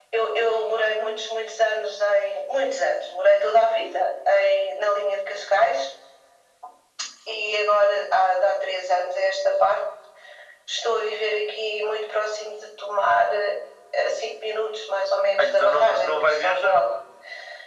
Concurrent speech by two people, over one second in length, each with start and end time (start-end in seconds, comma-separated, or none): 15.4-16.8